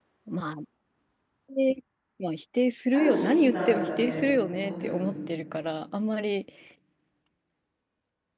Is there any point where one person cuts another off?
Yes, from 2.9 s

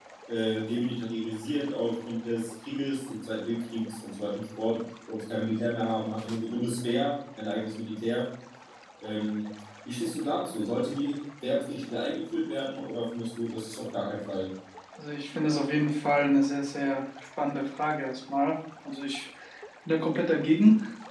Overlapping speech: No

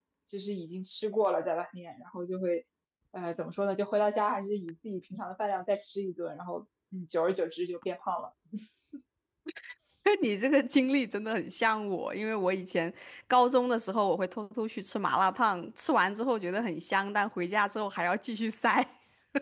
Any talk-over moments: No

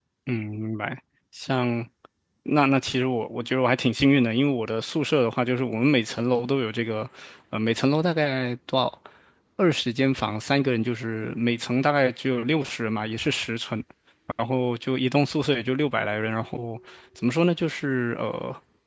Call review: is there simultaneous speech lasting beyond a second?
No

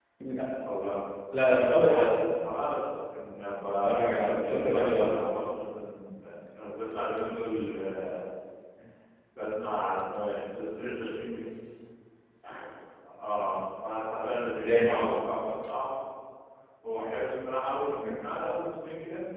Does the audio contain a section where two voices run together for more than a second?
Yes, from 3.8 s

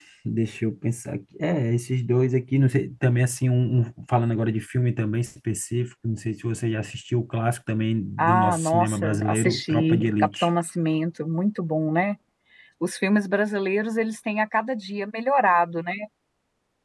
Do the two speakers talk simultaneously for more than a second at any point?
Yes, from 8.2 s

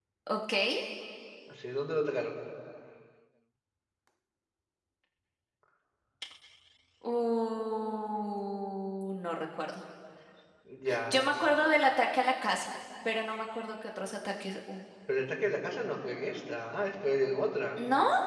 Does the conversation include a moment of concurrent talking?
No

